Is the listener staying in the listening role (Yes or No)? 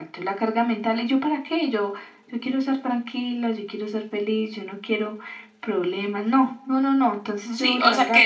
No